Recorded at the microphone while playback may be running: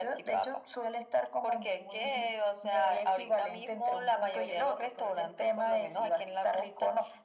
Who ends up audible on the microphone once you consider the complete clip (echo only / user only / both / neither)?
echo only